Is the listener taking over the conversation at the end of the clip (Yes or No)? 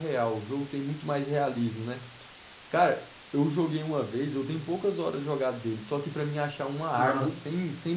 No